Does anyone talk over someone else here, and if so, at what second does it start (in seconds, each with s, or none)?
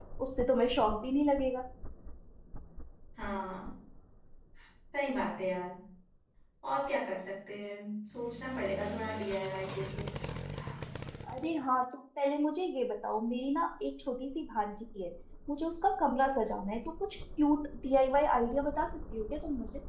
none